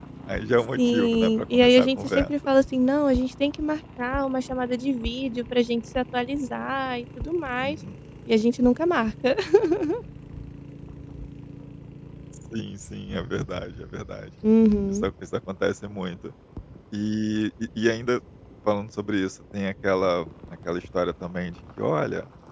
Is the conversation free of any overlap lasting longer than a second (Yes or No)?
No